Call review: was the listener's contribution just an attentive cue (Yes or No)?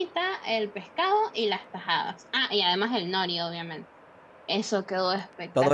No